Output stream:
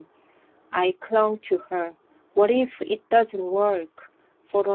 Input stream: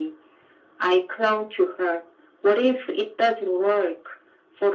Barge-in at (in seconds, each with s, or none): none